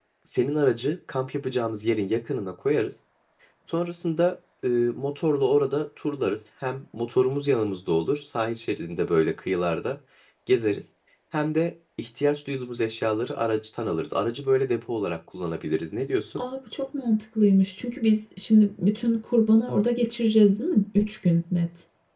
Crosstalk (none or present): none